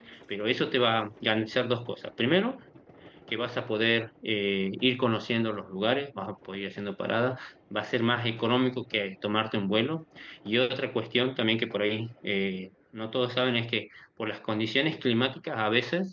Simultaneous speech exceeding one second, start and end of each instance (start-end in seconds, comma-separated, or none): none